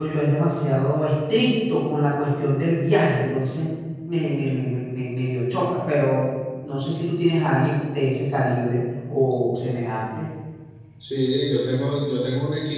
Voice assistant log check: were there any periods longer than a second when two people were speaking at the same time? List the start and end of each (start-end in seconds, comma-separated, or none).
none